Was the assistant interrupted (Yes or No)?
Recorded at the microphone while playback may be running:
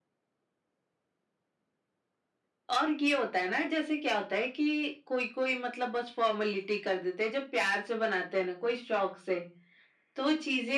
No